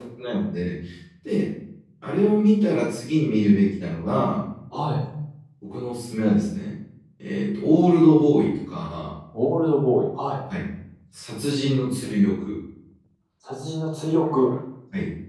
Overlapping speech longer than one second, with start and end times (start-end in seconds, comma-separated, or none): none